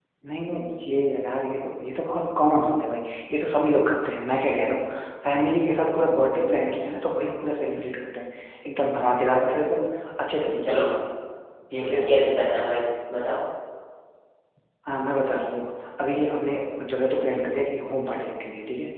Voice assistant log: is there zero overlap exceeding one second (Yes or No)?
Yes